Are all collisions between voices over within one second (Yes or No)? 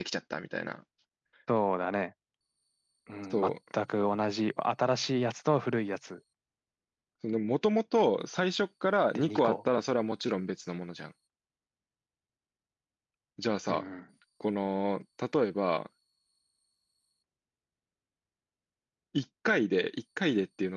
Yes